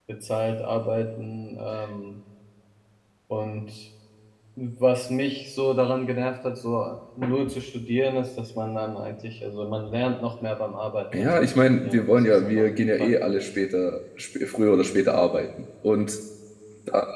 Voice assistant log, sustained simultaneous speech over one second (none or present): present